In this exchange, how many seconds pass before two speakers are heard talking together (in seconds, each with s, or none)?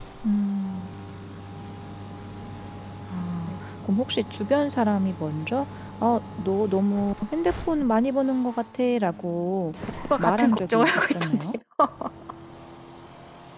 10.2 s